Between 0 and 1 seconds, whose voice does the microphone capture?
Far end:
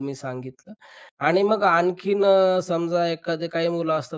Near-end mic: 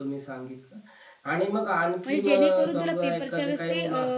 echo only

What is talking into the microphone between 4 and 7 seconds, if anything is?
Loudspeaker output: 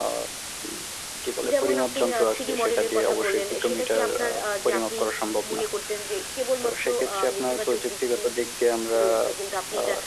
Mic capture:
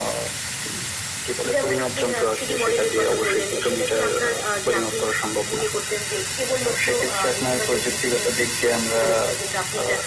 echo only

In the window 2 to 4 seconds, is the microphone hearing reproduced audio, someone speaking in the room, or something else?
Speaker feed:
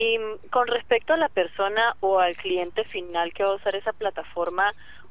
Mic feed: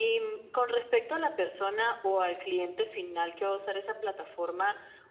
echo only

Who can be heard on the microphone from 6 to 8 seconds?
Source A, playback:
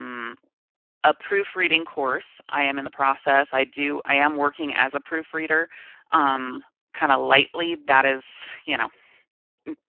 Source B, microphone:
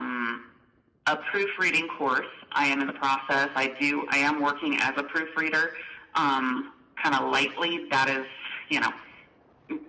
echo only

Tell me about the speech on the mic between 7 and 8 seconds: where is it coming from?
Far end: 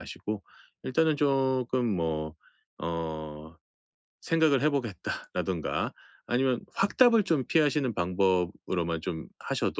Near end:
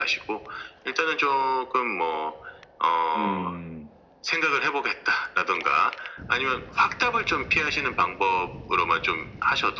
echo only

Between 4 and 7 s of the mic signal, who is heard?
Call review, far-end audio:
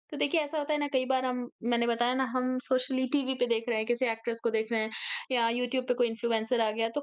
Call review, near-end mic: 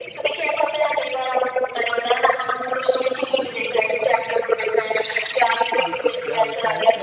both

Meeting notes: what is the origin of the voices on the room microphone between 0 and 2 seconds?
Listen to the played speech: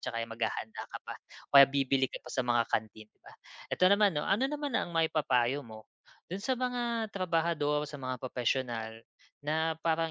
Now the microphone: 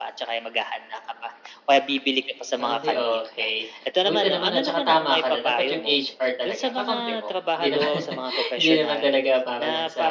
echo only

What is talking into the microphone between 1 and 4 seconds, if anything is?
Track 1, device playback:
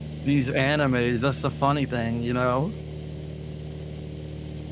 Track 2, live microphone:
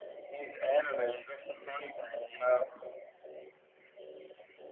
echo only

